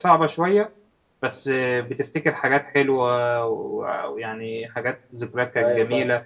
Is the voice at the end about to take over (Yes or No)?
No